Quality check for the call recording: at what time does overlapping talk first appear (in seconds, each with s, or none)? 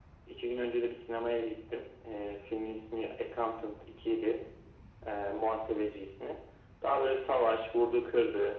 none